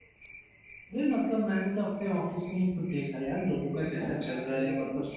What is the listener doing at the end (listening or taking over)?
listening